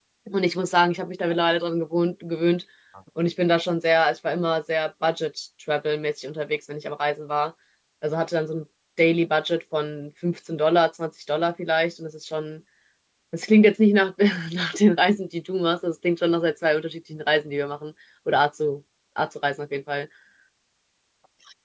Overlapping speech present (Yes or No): No